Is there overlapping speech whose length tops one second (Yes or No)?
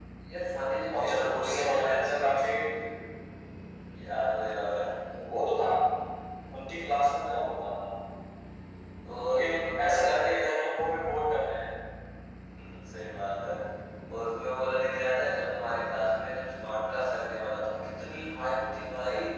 Yes